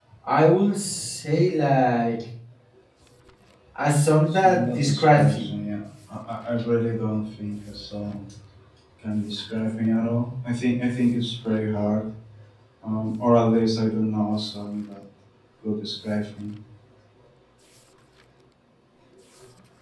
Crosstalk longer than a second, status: present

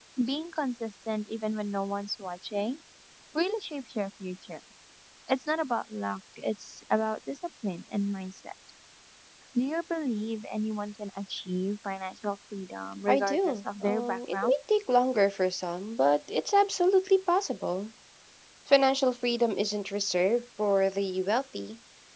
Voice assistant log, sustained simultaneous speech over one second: present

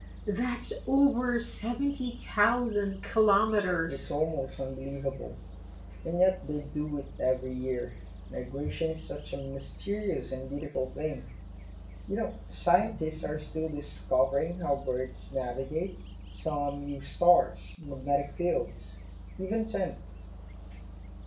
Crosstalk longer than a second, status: none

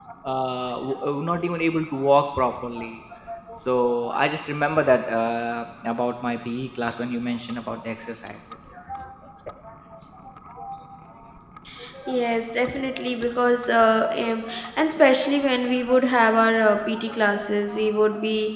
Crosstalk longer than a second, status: none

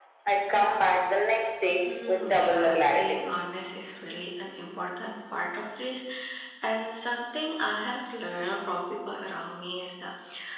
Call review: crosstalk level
present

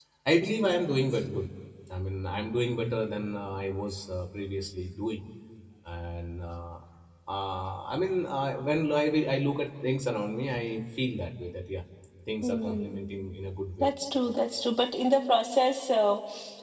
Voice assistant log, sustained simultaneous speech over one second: none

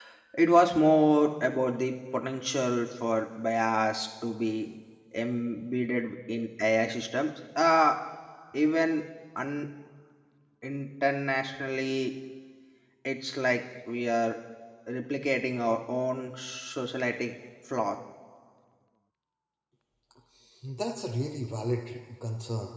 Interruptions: none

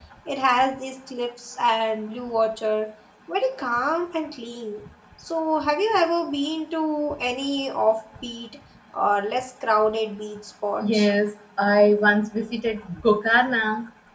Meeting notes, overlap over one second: none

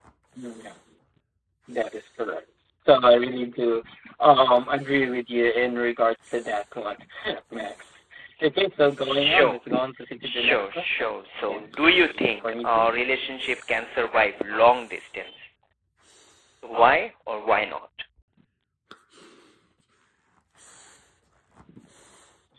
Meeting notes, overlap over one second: present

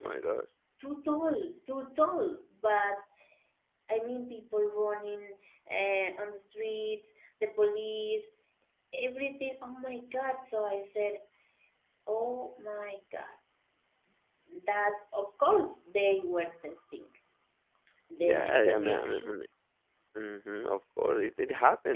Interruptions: present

